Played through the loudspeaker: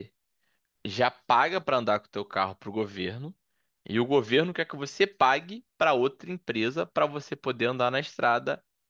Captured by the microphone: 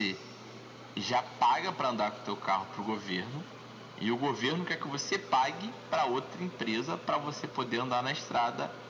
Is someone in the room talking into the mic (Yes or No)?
No